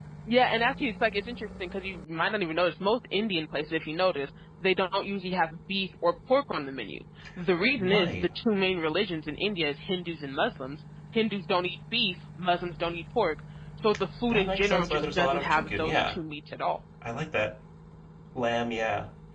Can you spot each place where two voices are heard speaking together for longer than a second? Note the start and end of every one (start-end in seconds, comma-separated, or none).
14.3-16.2